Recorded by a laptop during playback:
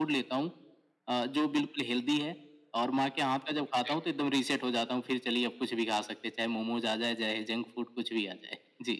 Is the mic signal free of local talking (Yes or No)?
No